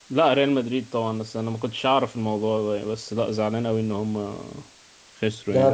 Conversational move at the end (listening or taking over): taking over